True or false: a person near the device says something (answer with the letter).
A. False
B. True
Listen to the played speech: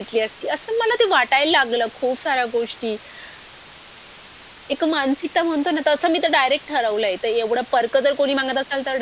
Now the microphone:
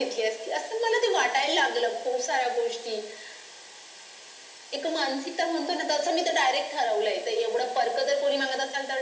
A